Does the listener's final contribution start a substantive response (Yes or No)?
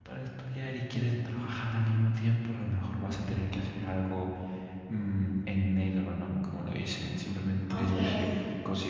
No